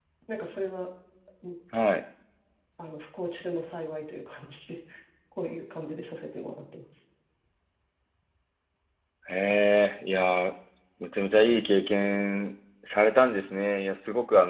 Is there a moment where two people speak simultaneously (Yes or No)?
No